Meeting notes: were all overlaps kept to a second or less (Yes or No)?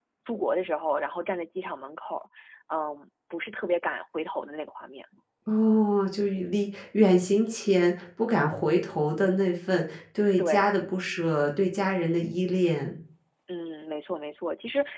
Yes